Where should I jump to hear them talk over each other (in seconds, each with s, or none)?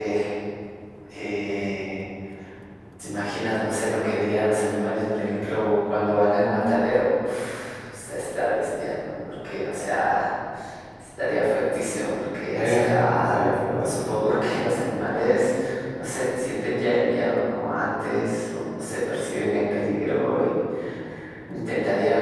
12.5 s